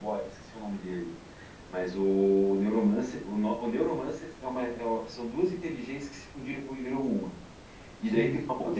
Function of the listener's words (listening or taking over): listening